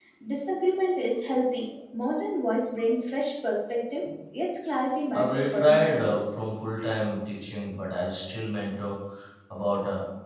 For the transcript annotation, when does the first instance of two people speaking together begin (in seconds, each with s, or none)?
5.1 s